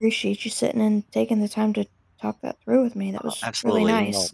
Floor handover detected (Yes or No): Yes